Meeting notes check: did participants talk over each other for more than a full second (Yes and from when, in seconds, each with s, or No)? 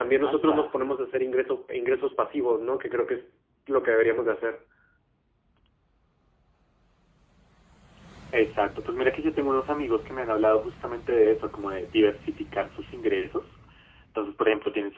No